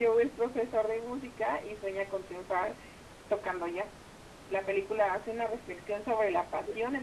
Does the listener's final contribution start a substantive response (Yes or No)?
No